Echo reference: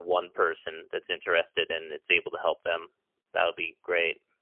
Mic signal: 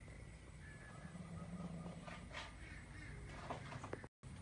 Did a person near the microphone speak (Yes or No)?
No